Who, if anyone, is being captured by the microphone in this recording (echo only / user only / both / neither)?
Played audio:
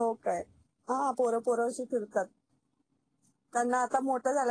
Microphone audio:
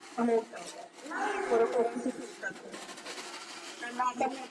both